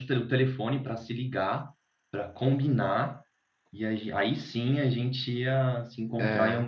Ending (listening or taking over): listening